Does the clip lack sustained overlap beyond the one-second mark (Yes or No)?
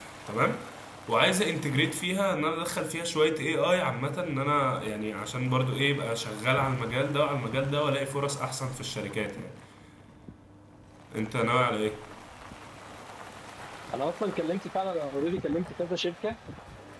Yes